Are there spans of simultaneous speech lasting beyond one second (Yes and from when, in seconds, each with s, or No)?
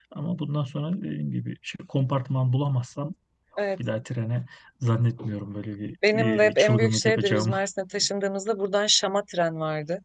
Yes, from 6.0 s